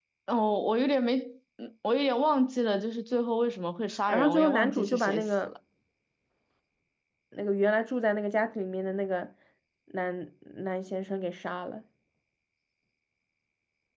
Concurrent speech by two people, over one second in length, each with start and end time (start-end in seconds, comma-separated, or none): 4.1-5.5